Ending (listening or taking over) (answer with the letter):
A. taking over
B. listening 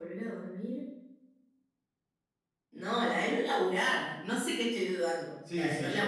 A